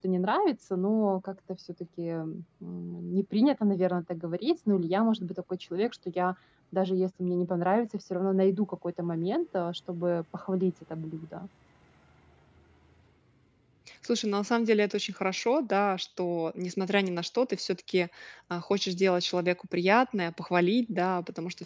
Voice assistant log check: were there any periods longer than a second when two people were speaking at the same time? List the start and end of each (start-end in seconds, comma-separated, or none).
none